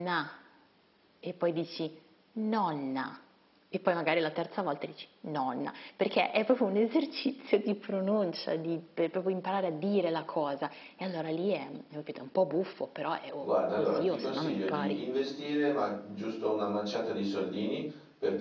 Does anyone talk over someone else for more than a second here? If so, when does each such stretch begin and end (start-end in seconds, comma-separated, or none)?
13.4-15.0